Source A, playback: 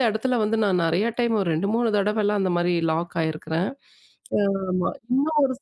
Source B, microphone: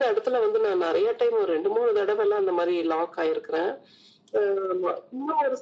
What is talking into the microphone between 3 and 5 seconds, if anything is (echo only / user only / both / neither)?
echo only